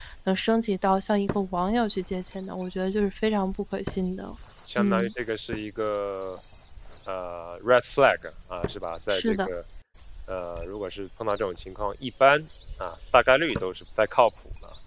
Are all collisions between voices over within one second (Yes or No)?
Yes